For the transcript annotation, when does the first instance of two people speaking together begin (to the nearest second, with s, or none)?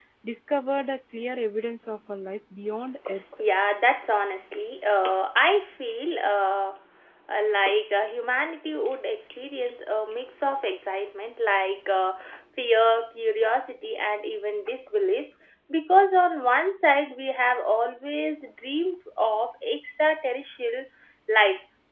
none